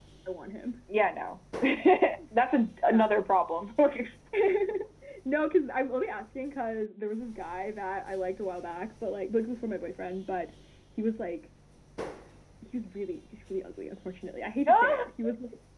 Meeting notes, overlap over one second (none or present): none